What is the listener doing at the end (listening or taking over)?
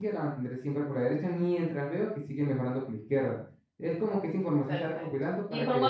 taking over